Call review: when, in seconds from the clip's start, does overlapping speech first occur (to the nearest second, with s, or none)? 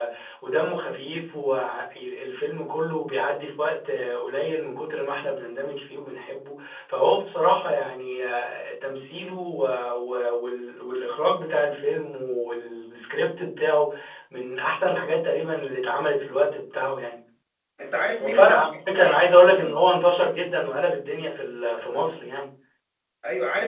18 s